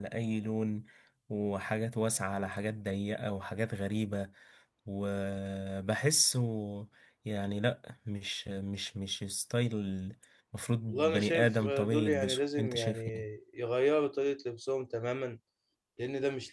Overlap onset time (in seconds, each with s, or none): 10.9 s